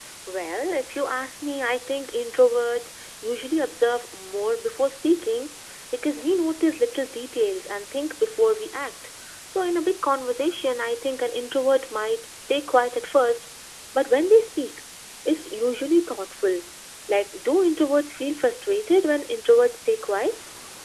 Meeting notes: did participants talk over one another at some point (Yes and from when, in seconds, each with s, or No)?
No